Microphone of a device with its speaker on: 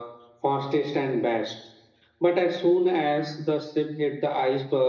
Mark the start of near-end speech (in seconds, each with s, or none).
none